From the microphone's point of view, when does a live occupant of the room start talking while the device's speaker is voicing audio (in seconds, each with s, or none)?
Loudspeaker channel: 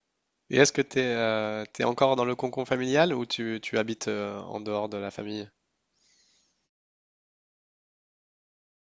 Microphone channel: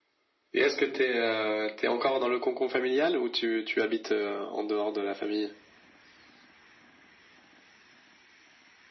none